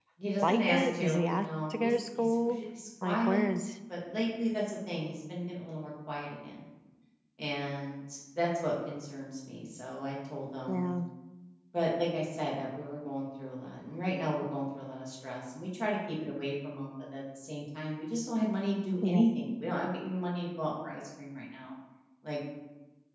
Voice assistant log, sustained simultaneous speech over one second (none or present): present